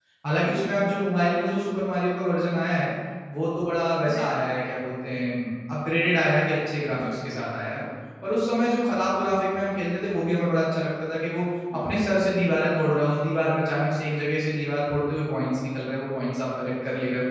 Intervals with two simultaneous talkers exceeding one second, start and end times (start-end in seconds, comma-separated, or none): none